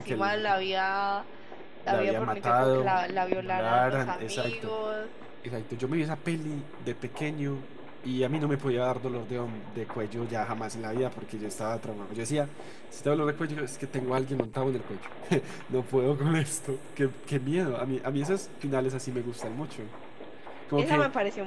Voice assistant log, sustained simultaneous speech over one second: present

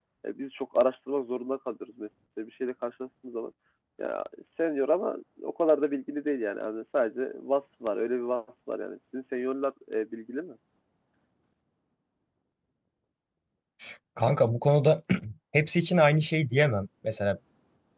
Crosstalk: none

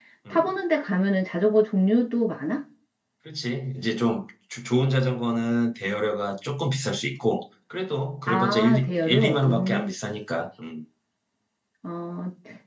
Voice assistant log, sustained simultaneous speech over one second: present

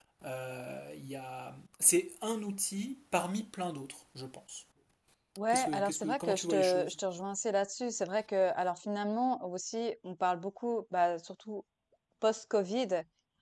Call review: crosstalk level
present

